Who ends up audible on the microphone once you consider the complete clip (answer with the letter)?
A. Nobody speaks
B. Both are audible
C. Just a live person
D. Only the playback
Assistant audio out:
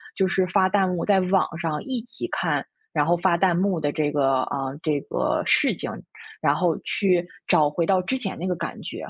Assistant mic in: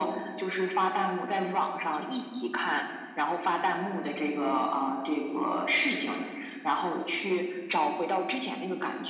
D